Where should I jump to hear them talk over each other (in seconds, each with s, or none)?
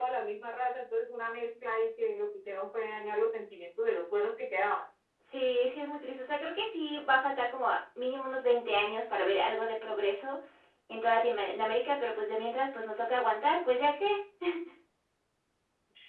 none